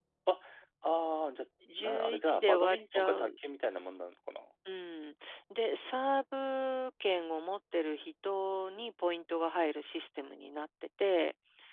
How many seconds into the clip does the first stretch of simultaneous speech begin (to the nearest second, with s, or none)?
2 s